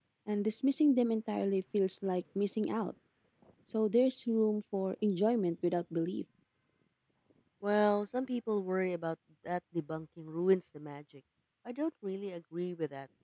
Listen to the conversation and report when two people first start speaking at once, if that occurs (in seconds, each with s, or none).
none